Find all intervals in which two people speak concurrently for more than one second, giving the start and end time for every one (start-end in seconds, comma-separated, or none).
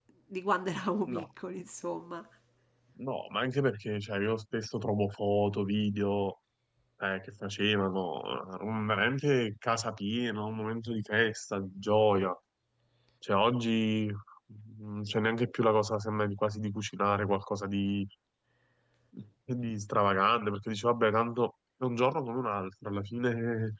none